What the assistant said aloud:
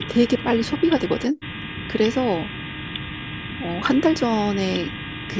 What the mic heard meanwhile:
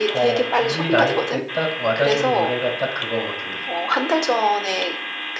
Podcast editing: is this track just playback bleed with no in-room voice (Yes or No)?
No